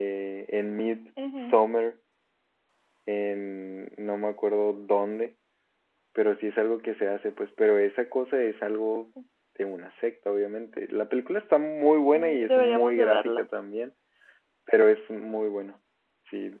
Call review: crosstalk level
present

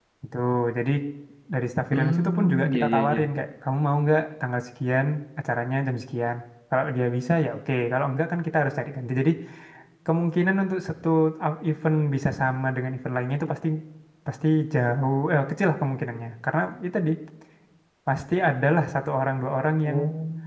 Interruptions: present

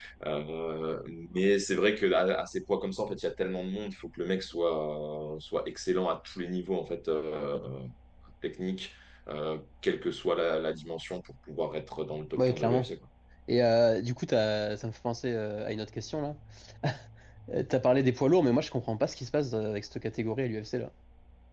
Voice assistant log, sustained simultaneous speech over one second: none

